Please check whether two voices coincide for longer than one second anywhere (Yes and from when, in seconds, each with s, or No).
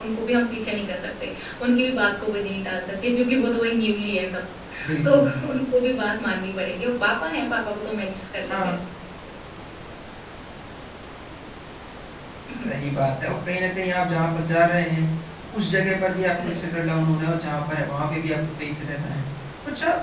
No